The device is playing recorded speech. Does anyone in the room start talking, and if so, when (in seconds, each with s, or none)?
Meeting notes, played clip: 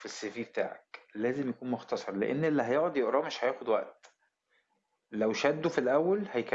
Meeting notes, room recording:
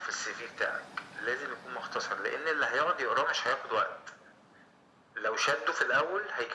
none